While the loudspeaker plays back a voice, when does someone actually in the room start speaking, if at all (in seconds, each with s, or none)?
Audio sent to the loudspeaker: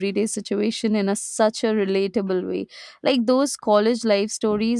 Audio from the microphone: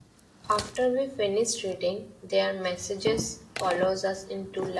0.5 s